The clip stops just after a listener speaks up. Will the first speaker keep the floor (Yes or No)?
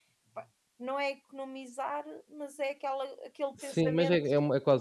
No